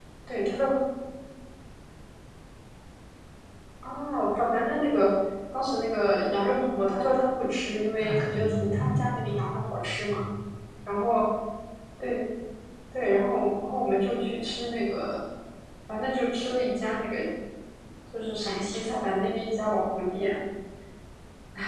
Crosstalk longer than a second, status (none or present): present